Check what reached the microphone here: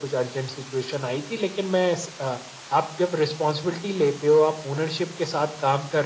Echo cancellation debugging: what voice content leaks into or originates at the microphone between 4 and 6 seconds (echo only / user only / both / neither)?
echo only